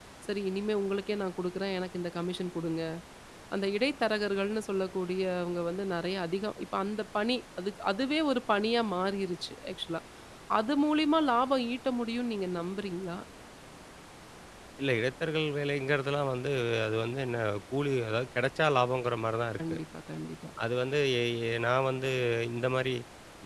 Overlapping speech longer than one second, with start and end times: none

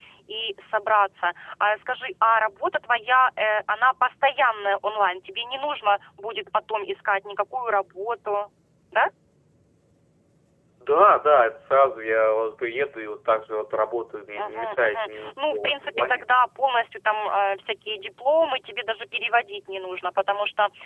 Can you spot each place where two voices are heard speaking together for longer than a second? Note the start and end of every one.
14.4-16.2

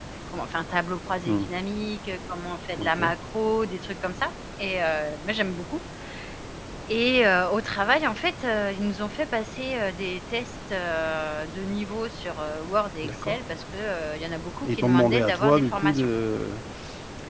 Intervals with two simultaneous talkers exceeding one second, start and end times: 14.6-16.1

